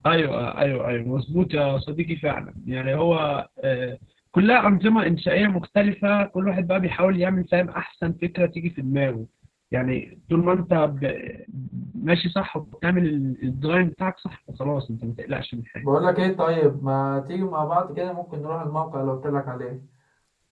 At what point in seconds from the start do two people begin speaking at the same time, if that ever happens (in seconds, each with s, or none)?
none